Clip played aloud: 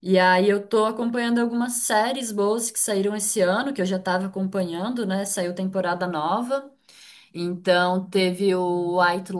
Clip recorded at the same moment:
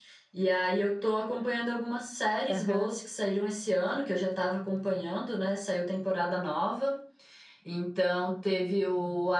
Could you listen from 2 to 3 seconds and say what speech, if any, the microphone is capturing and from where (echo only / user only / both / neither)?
both